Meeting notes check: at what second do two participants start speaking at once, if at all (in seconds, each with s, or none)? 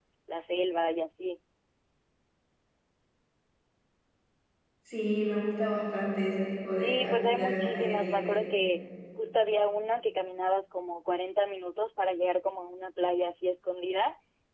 6.8 s